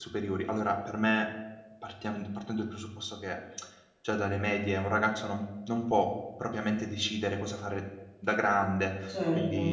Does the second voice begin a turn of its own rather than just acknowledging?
No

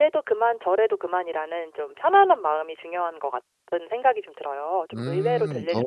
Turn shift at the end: Yes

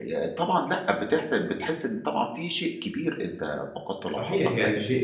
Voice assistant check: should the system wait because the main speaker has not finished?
No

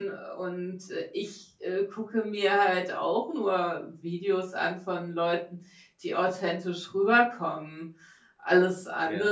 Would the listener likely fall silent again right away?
Yes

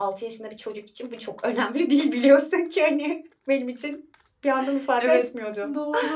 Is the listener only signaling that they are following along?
No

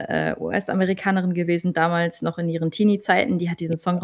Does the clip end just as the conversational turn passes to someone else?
No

